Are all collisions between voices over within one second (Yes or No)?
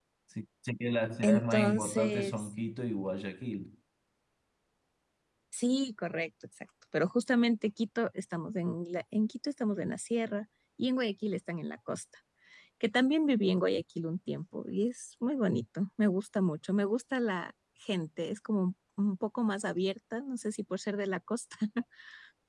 No